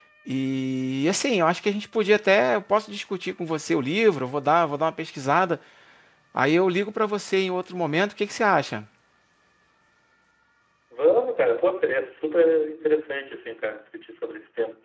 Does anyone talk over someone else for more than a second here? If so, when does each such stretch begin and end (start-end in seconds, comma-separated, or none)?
none